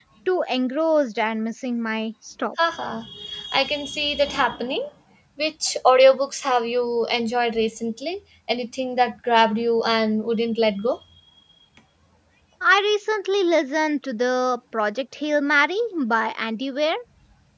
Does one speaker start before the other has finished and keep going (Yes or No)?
No